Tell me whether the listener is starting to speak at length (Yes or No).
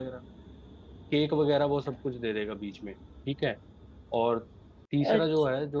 No